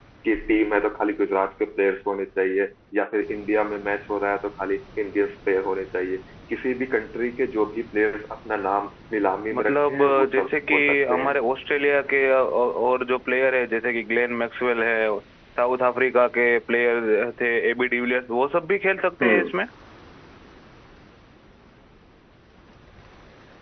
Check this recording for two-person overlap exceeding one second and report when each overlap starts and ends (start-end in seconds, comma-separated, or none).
9.5-11.4